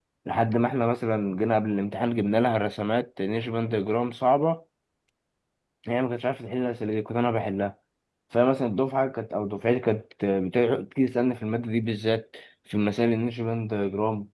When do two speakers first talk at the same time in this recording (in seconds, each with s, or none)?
none